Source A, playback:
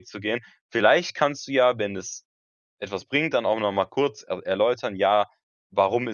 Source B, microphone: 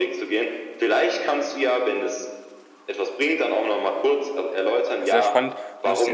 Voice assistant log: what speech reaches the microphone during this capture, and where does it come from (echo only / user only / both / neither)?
both